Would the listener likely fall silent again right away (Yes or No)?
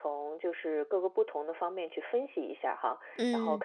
Yes